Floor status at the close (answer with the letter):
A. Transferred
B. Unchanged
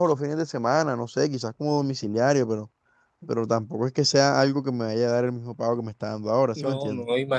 A